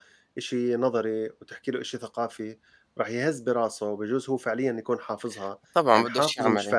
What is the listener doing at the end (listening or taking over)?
taking over